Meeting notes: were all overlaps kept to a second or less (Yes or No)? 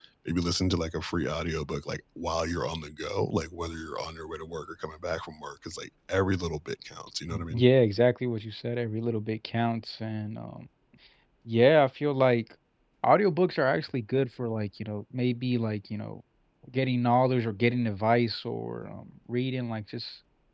Yes